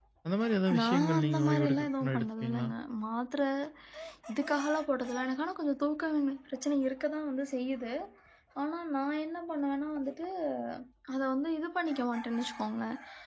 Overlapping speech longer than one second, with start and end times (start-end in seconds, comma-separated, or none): 0.8-2.7